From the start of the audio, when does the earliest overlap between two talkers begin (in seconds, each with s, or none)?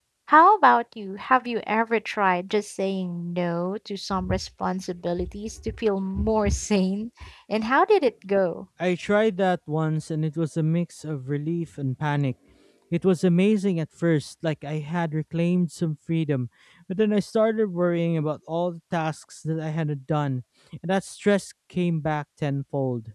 none